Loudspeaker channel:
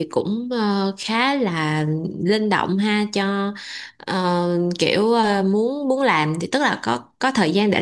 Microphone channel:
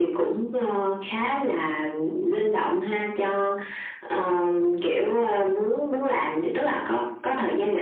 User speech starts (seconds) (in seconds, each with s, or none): none